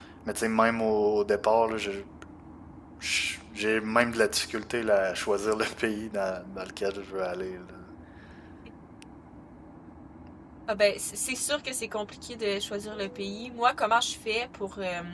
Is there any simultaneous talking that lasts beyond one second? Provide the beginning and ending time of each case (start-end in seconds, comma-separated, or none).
none